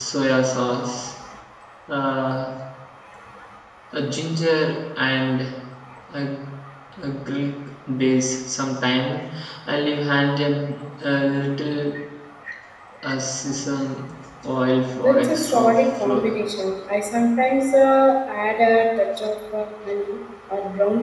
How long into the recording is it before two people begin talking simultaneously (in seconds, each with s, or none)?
15.0 s